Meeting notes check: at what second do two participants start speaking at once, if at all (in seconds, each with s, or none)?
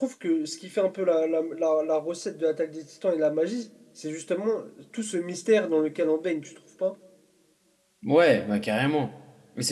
none